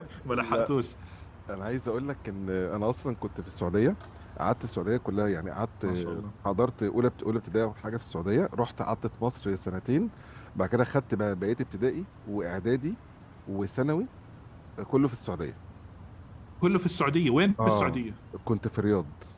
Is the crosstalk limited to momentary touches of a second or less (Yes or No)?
Yes